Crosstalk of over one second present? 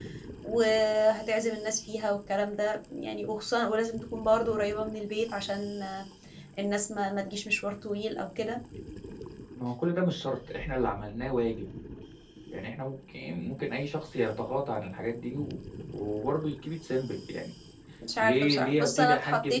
Yes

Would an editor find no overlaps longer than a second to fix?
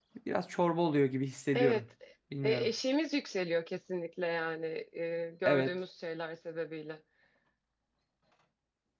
Yes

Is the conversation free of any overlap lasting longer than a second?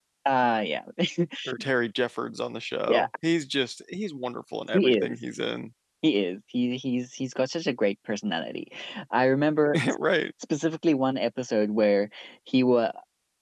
Yes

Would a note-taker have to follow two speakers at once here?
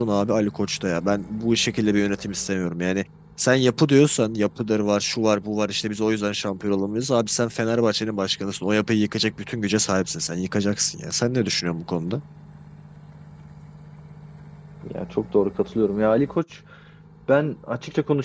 No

